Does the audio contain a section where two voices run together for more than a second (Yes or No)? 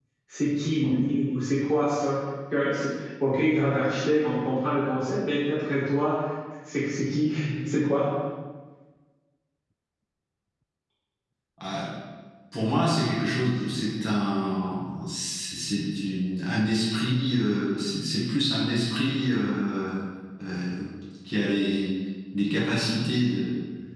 No